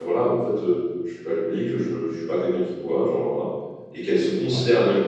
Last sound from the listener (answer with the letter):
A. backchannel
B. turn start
A